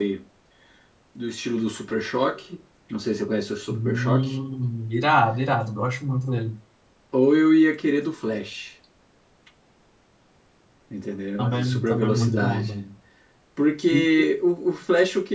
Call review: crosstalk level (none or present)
present